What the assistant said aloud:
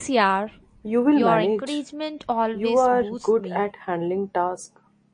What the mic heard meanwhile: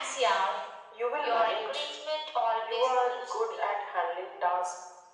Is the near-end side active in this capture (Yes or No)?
No